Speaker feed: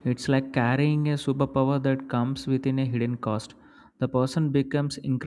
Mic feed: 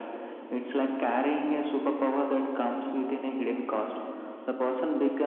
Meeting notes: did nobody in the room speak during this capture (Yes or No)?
Yes